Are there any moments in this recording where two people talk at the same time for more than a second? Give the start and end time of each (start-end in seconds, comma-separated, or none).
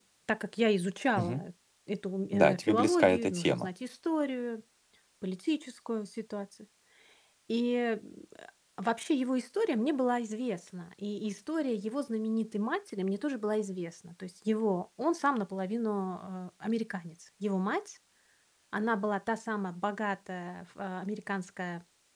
2.3-3.7